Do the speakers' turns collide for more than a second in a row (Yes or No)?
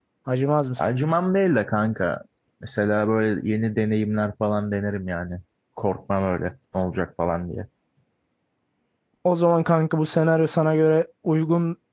No